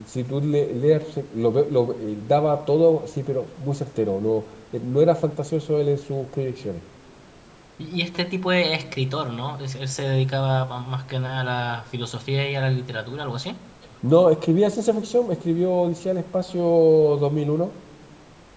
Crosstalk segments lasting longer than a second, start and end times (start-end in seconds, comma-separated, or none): none